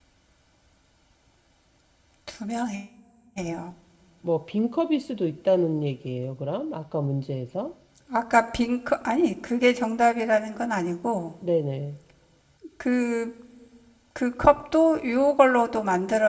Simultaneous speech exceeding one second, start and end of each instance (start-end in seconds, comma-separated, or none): none